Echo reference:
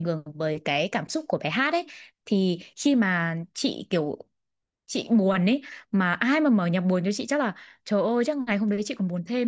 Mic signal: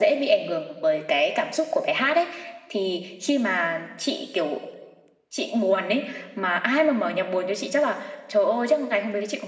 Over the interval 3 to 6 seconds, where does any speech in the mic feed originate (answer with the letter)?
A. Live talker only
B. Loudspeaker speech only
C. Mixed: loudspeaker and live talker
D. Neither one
B